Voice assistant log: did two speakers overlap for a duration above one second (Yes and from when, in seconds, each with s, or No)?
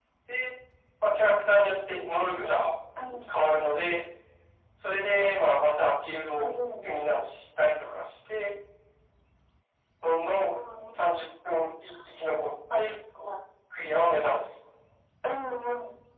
No